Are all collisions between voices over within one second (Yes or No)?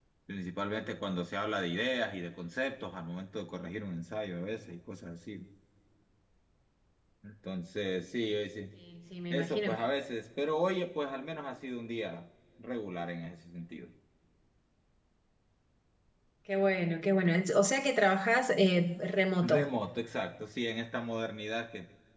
Yes